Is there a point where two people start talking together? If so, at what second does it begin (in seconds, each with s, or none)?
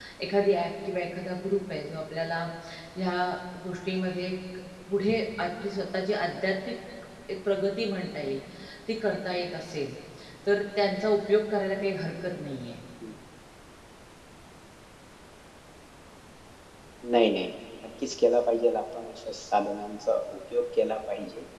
none